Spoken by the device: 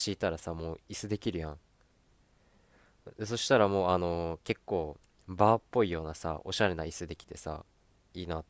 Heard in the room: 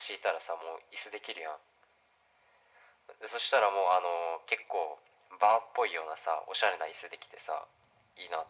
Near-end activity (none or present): none